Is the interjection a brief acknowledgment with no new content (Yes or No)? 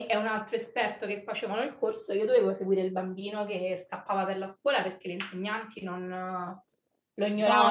No